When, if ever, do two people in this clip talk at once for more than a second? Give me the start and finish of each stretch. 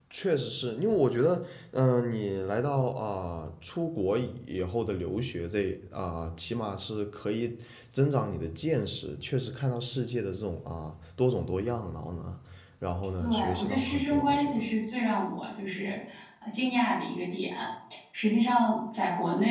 13.2-14.6

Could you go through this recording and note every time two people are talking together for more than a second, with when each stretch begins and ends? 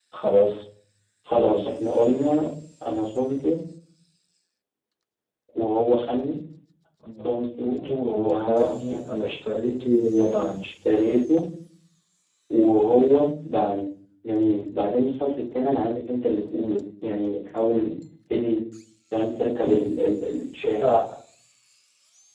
7.2-9.3

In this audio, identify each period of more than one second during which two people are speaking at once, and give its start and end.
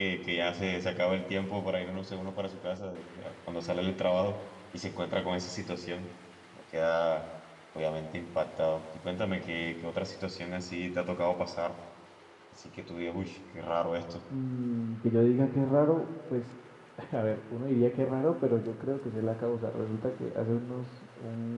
none

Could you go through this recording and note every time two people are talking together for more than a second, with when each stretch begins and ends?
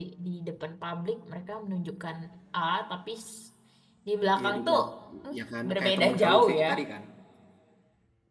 5.4-6.7

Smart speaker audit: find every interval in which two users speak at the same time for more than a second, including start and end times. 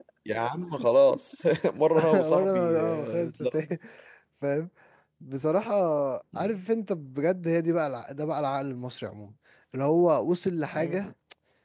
2.1-3.5

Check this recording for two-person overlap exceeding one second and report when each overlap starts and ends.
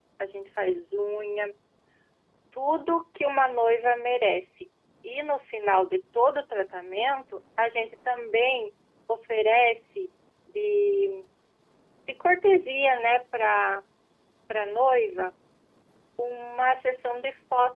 none

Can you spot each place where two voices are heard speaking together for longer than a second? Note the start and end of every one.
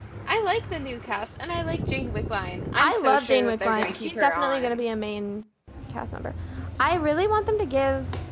2.8-4.8

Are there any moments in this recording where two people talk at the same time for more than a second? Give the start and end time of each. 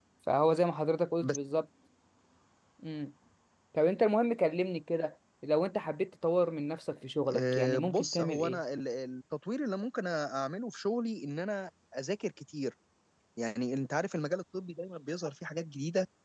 7.3-8.6

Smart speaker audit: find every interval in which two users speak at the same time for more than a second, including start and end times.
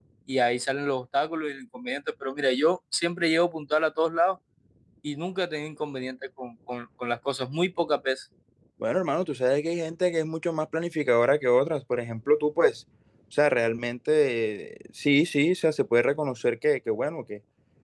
none

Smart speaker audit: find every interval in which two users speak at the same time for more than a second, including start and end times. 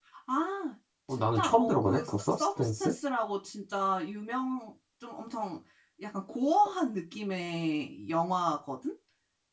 1.1-2.9

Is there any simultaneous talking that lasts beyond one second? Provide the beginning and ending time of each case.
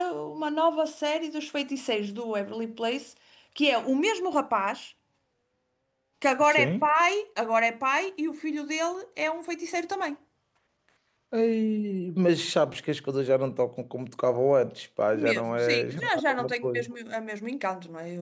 15.1-16.9

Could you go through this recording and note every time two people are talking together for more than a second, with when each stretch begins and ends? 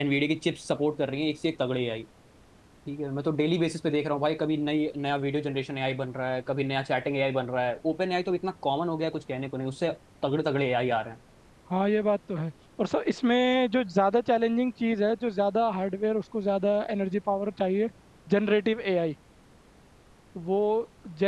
none

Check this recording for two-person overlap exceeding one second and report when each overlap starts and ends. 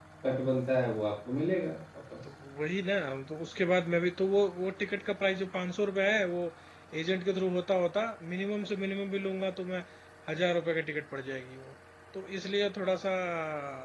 none

